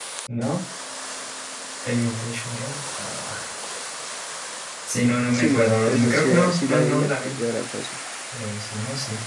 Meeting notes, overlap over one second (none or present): present